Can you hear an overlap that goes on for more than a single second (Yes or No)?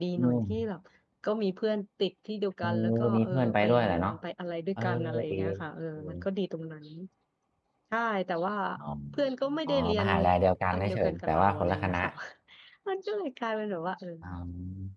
Yes